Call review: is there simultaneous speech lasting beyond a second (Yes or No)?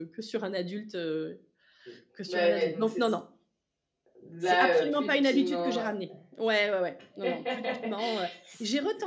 Yes